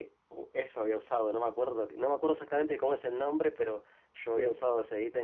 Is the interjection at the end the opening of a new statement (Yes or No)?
No